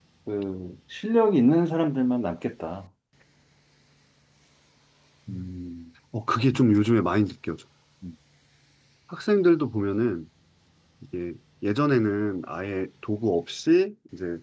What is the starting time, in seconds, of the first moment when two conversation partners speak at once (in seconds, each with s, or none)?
none